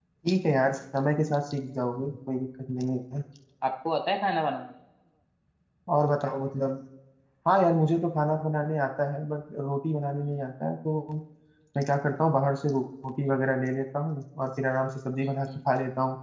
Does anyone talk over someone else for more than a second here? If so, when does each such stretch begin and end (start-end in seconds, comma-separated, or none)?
none